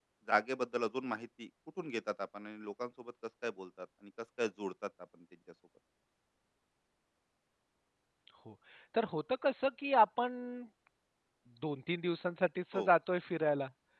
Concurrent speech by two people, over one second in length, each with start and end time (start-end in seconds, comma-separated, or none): none